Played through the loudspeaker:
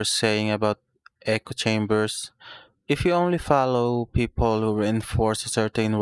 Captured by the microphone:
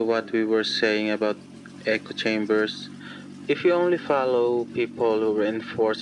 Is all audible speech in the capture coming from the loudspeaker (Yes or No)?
Yes